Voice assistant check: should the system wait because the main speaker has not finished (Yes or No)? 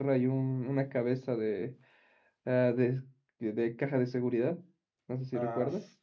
No